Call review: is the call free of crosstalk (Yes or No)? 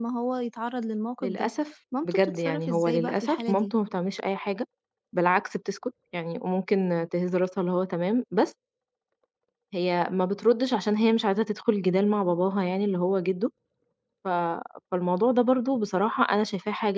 No